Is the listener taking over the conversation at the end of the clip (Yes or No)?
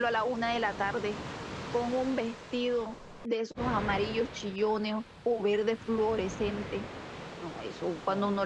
No